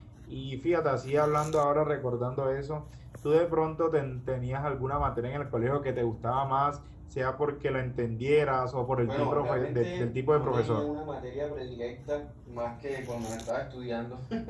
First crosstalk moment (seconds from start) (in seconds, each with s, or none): 9.1 s